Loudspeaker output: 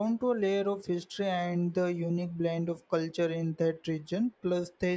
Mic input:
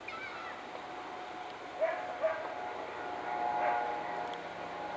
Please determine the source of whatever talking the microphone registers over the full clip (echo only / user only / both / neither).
neither